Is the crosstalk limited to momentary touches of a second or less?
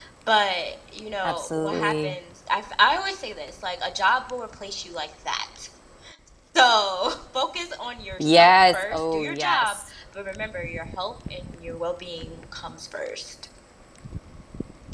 No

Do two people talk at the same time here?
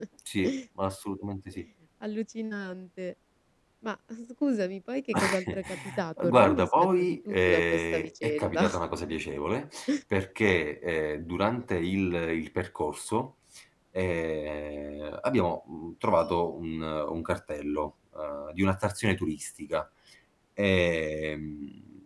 Yes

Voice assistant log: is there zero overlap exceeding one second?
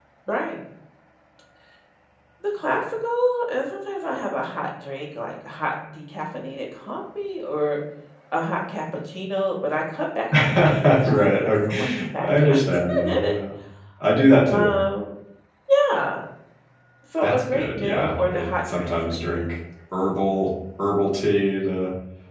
No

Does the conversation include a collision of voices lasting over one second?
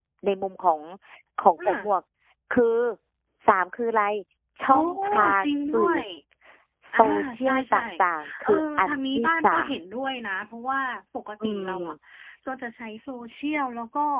Yes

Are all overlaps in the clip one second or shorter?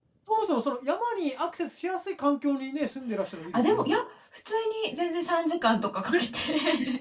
Yes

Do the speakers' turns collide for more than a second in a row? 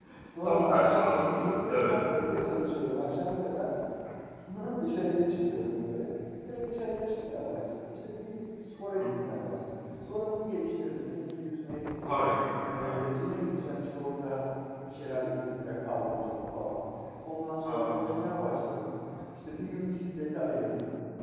Yes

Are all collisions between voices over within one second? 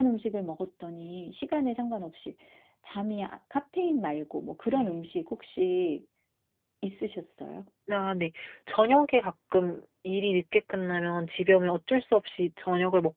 Yes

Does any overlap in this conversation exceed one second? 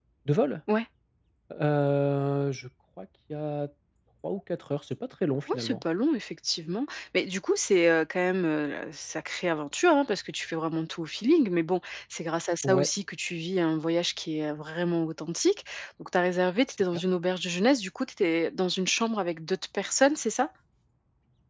No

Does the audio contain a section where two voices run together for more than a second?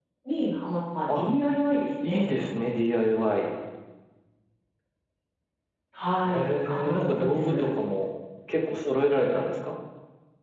Yes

